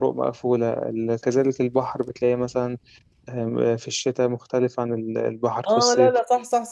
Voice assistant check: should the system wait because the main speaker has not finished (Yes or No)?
No